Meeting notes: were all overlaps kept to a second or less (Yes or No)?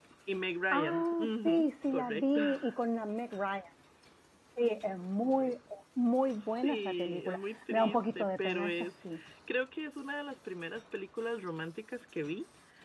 No